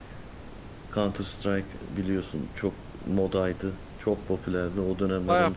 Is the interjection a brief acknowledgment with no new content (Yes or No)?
No